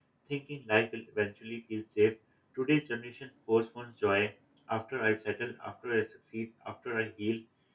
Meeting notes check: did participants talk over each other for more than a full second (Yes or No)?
No